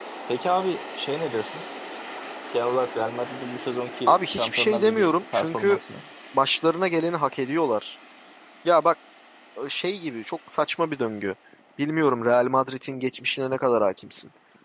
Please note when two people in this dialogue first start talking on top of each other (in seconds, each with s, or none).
4.1 s